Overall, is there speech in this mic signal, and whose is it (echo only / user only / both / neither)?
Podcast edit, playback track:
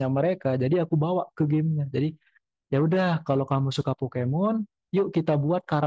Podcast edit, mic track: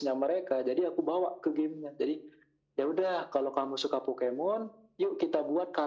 echo only